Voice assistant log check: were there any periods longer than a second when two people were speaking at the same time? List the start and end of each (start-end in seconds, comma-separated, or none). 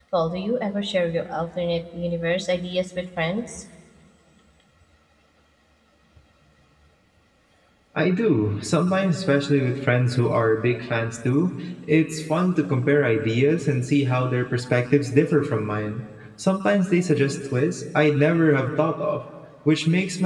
none